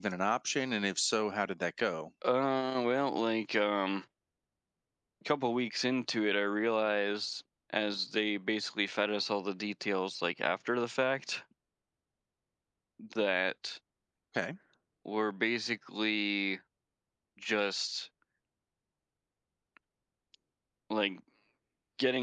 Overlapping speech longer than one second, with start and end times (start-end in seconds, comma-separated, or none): none